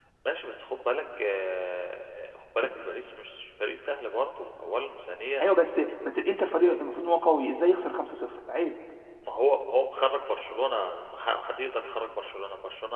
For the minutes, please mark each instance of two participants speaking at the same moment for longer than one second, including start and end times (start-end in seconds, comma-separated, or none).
none